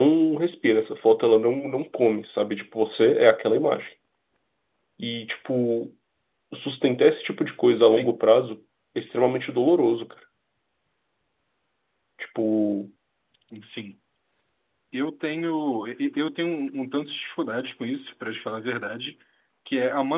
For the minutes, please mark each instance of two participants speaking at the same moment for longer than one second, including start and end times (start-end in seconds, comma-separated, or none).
none